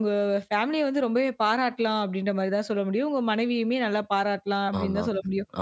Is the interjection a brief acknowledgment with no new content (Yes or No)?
Yes